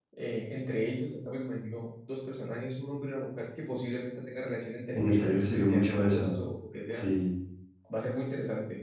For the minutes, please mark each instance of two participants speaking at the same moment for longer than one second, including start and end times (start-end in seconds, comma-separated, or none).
4.9-6.3